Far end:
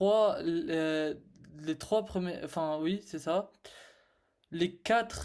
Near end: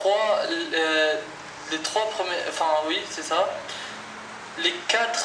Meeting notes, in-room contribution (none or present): none